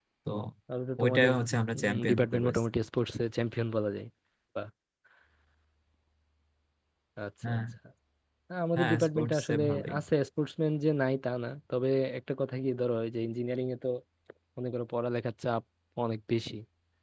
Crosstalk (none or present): present